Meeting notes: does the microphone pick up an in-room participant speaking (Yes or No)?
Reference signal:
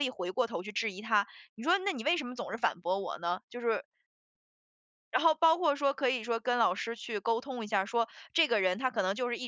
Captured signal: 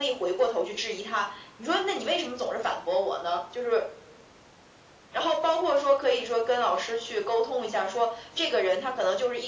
No